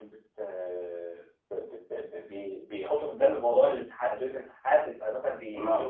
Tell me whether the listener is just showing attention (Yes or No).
Yes